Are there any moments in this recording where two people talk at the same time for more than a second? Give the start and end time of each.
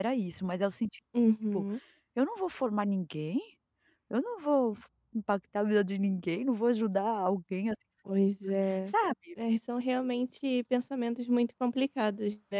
none

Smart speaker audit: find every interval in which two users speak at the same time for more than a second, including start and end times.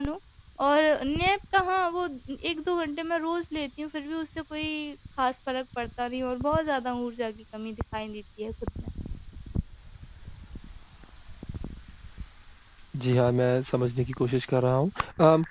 none

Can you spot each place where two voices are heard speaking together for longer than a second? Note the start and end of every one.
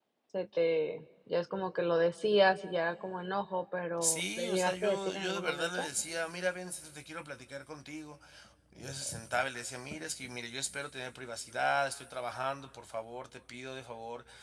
4.0-5.9

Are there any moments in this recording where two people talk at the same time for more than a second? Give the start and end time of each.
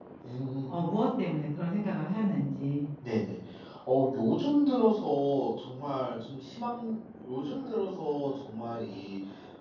none

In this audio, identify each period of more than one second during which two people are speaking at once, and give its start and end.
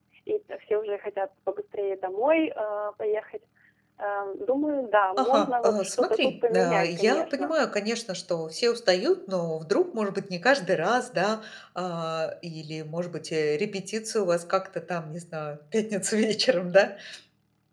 5.2-7.5

